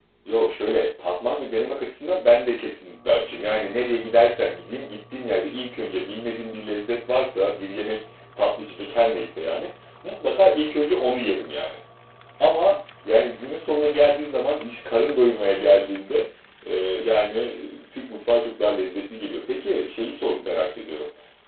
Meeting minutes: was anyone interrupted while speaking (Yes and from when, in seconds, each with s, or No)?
No